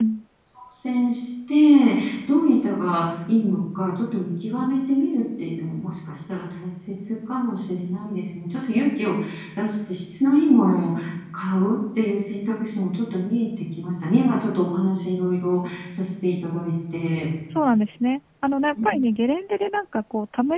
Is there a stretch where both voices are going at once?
No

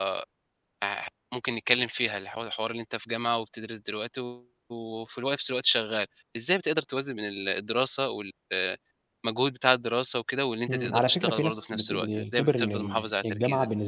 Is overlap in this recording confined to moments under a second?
No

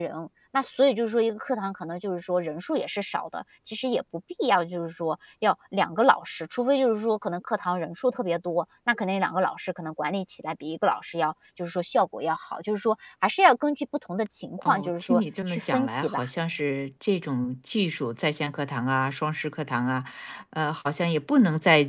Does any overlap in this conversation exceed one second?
Yes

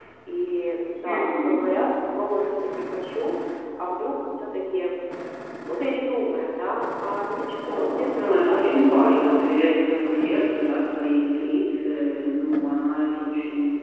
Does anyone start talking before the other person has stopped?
Yes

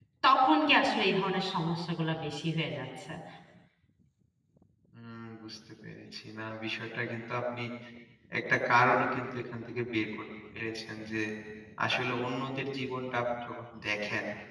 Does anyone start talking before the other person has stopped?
No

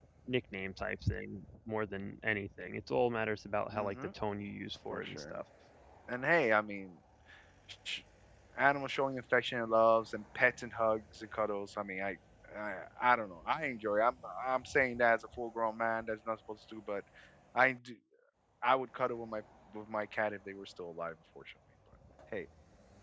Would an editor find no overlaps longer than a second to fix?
Yes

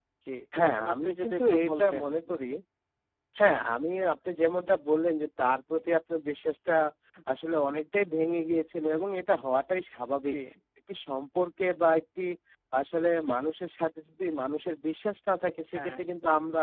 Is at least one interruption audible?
Yes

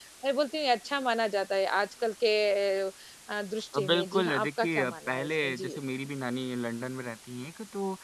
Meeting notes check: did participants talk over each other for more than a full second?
Yes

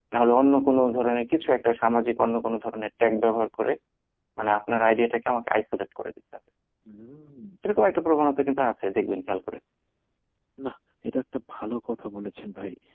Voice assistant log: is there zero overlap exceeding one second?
Yes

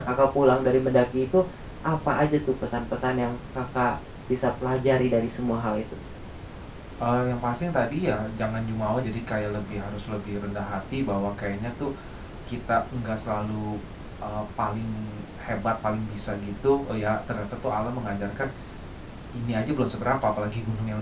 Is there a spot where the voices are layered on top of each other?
No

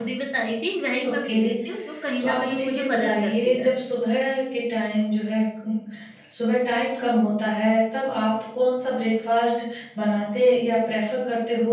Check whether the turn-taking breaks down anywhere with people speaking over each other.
Yes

